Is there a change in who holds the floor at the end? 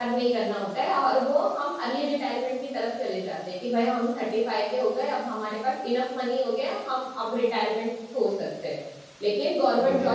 No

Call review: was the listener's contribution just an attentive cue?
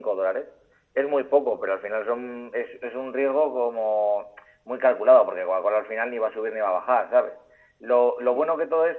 Yes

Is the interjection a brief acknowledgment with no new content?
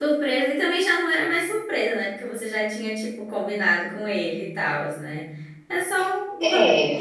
No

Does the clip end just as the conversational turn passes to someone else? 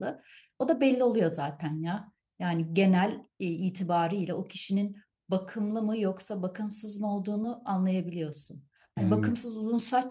No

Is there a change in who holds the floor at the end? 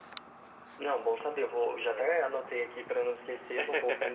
No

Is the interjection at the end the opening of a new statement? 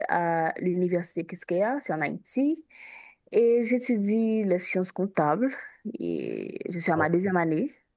No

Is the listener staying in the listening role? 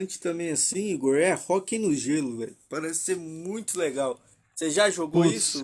No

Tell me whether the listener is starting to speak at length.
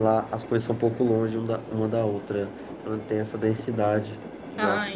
Yes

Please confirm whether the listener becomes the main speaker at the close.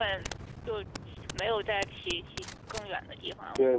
Yes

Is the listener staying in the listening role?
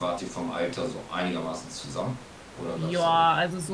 No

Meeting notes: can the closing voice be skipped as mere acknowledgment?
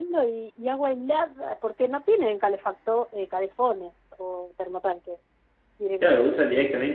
No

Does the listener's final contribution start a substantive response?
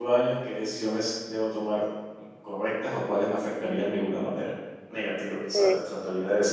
No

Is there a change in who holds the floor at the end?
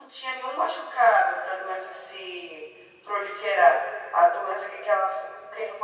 No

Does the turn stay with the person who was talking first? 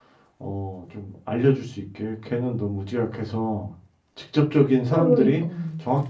Yes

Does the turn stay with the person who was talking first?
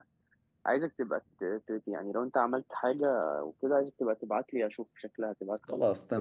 No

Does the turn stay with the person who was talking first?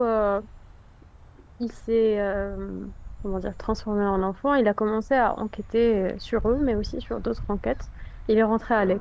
Yes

